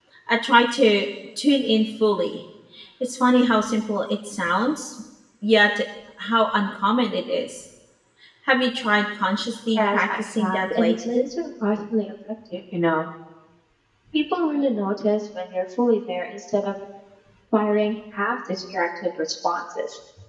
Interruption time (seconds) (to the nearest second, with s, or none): 10 s